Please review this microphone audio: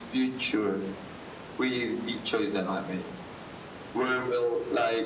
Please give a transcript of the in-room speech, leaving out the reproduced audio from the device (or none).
none